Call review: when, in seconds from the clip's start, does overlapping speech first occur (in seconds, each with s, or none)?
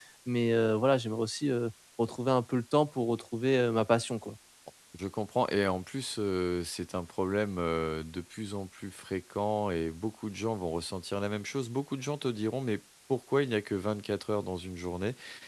none